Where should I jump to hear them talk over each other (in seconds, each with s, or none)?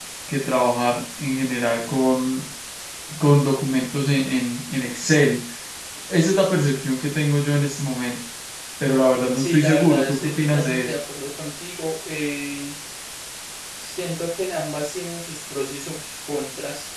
9.3 s